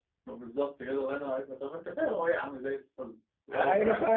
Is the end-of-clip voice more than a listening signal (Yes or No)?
Yes